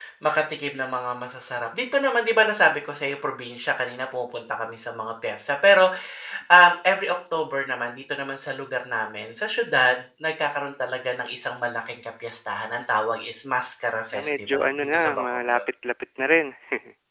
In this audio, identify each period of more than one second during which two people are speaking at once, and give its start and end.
14.1-15.6

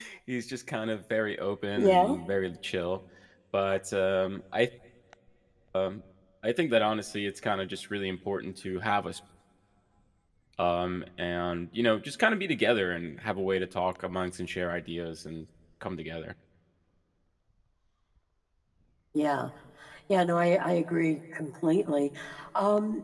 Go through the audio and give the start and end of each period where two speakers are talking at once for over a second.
none

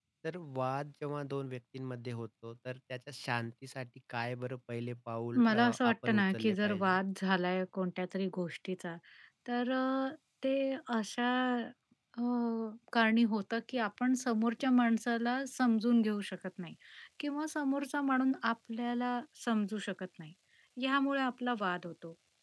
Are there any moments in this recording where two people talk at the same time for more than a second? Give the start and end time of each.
5.4-7.0

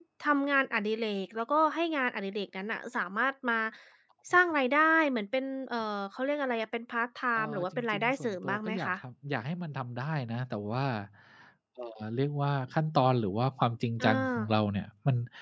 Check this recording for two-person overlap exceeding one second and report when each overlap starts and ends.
7.4-8.9

